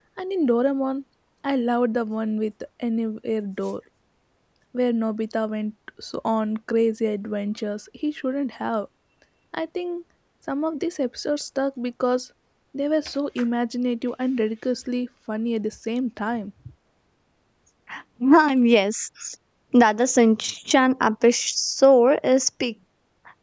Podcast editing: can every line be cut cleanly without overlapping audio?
Yes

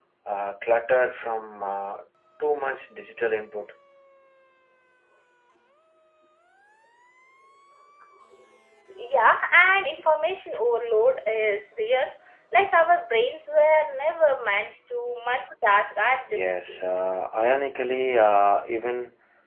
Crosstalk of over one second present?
No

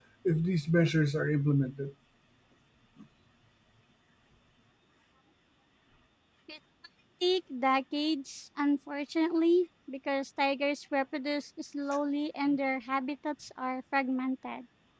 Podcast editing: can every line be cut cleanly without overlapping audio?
Yes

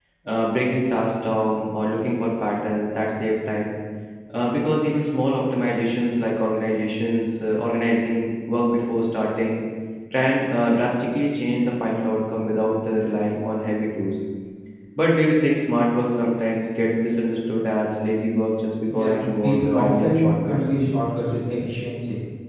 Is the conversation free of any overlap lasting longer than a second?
No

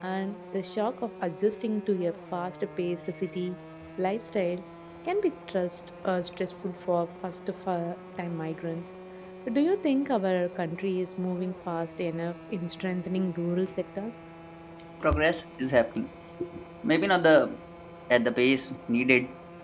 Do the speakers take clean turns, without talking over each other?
Yes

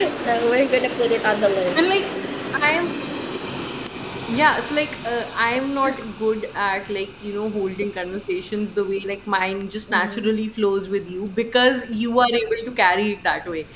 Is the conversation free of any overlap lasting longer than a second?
Yes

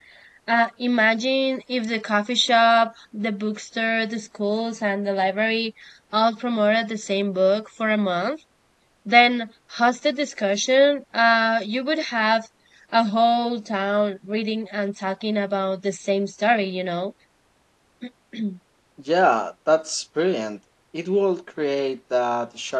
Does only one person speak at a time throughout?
Yes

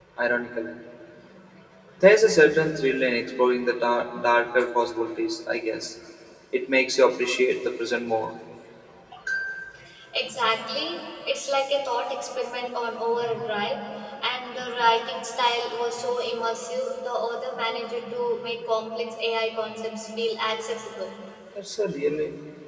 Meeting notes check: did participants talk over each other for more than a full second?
No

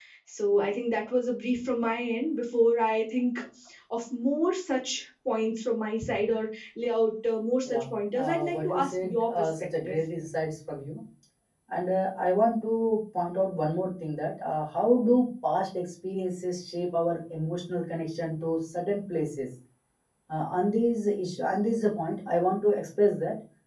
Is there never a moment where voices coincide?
No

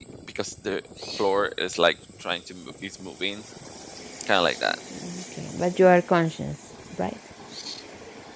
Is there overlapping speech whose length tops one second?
No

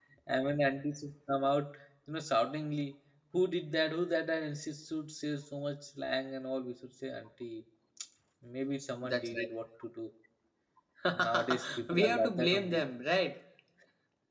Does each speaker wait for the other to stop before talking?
No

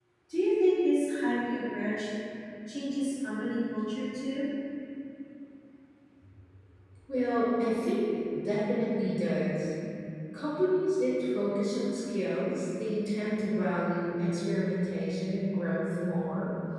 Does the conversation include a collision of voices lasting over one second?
No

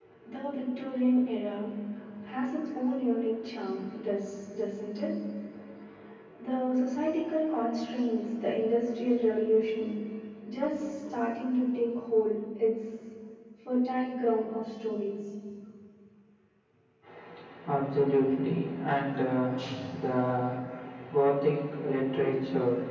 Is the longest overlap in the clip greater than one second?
No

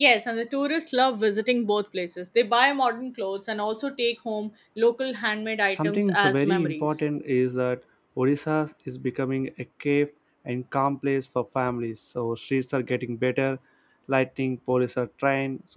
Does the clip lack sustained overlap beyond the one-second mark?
No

